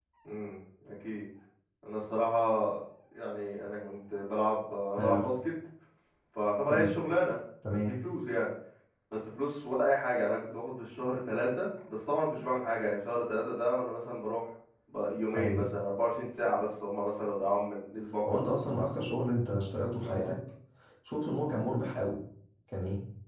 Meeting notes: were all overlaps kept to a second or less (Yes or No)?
Yes